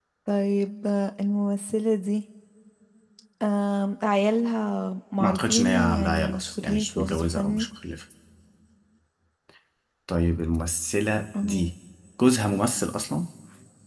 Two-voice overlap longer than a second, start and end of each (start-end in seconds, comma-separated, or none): 5.2-7.7